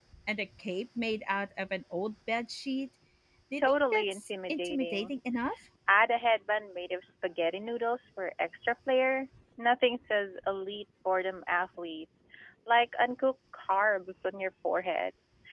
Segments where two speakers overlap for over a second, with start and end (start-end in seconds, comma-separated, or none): 3.6-5.1